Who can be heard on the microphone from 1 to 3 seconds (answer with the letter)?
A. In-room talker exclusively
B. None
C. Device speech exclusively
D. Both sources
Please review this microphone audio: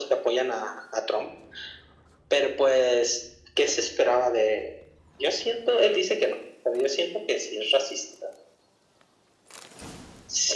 C